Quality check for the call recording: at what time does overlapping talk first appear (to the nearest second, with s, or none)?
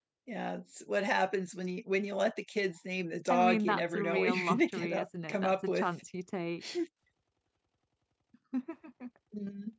3 s